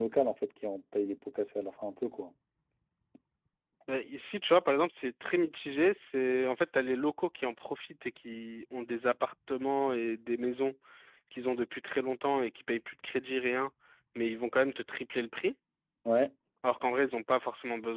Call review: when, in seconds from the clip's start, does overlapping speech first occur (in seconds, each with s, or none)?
none